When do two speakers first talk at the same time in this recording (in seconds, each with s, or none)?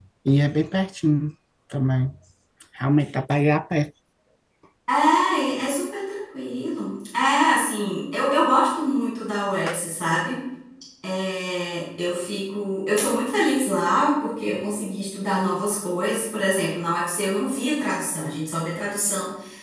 none